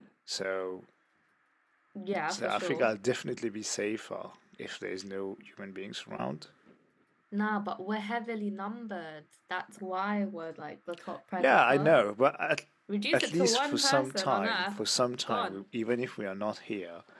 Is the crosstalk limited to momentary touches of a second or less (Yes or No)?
No